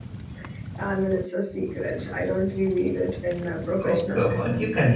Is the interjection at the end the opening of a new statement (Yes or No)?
Yes